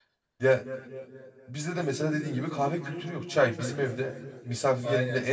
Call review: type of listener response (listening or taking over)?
listening